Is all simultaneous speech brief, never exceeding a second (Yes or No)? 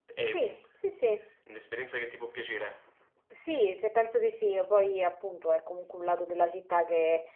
Yes